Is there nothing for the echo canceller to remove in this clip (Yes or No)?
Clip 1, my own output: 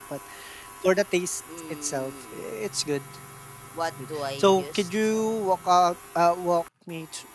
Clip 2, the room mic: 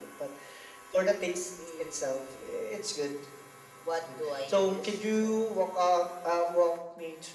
No